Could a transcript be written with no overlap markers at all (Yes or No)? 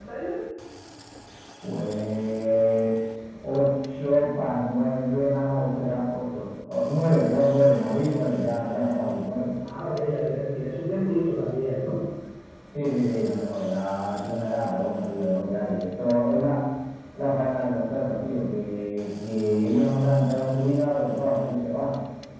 Yes